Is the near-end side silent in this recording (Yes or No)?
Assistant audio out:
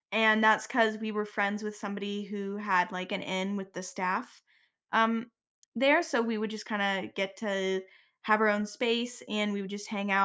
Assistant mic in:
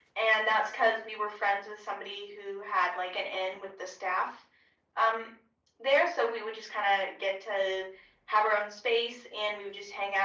Yes